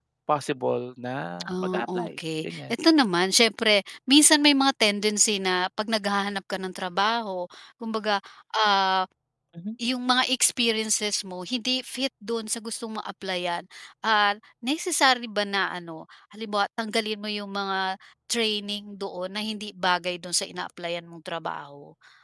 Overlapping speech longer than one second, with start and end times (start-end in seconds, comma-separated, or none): 1.5-2.8